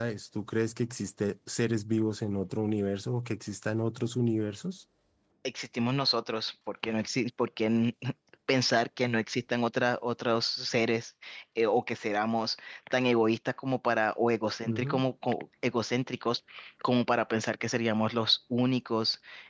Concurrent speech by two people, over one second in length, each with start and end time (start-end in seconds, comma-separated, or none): none